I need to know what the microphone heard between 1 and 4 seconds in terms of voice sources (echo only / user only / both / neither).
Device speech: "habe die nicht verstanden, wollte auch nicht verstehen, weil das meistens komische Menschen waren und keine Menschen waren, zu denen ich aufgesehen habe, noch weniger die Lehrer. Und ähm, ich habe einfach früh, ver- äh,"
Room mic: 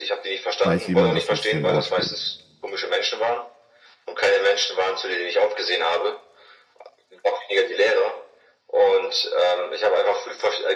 both